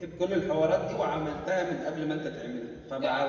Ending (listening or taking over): taking over